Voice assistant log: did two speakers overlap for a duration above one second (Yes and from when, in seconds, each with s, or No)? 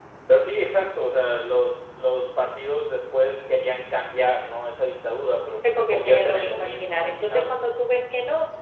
Yes, from 5.6 s